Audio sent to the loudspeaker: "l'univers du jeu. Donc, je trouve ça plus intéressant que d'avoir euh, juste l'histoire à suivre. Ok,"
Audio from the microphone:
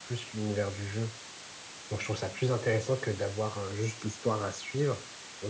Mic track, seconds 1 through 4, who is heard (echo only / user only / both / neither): echo only